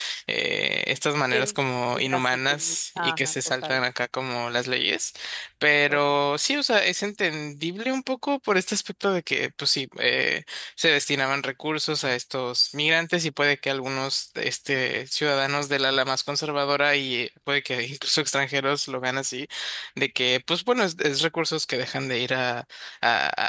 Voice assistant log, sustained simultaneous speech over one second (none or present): present